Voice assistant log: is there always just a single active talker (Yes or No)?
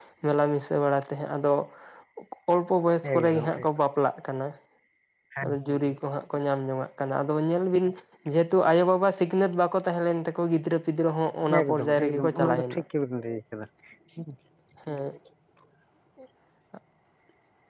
No